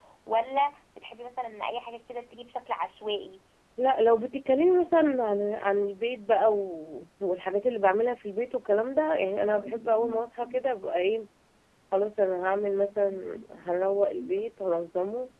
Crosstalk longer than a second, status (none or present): none